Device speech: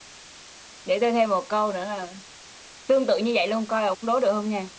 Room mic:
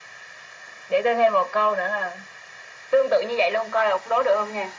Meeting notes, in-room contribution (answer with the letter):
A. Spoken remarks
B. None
B